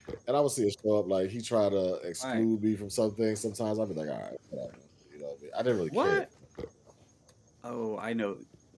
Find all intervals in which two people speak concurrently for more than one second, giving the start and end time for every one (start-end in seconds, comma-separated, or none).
none